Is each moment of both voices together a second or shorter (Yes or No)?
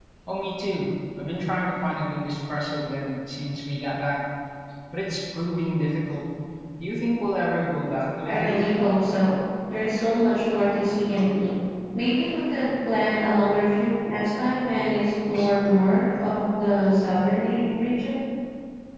Yes